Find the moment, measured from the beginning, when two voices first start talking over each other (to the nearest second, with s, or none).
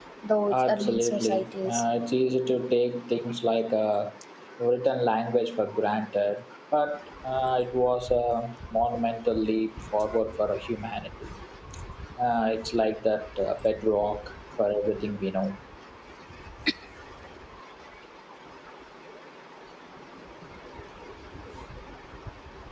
1 s